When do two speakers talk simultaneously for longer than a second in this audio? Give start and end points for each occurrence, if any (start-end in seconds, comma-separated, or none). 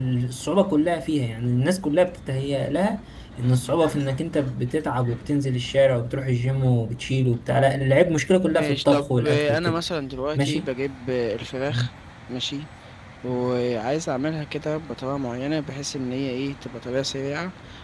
8.5-9.8